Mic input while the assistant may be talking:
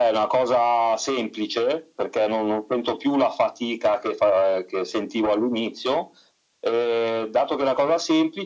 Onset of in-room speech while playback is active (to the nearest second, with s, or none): none